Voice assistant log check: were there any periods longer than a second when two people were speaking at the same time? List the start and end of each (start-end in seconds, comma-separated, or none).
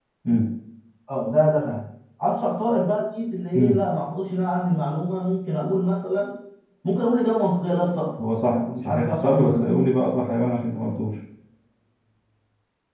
8.5-9.7